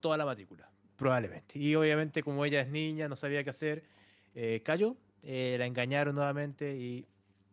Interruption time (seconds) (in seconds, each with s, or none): none